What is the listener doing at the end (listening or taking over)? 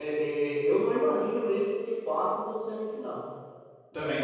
listening